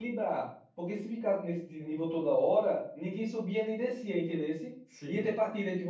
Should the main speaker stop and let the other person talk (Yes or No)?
No